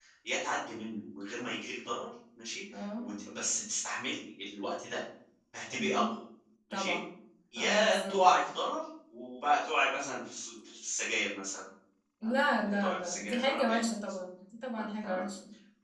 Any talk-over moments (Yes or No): Yes